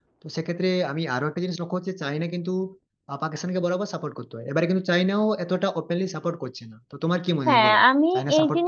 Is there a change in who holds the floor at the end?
Yes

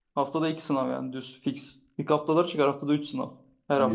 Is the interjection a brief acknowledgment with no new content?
No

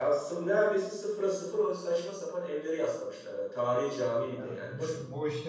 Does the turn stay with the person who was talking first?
No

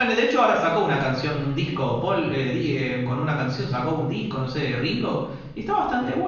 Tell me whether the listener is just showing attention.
Yes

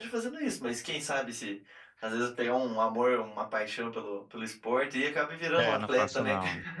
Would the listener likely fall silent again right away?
No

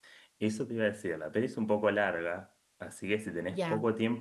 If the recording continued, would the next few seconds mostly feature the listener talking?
No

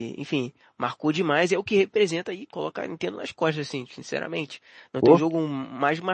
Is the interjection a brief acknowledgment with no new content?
Yes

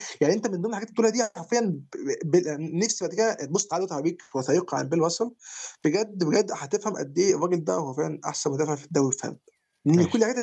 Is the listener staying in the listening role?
Yes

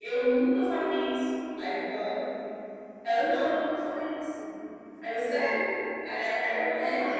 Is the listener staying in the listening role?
No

